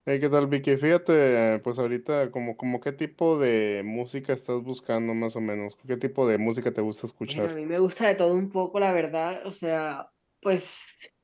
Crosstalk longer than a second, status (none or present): none